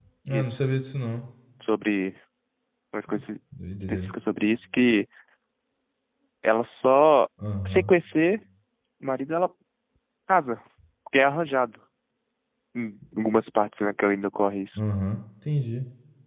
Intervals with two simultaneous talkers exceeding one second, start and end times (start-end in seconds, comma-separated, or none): none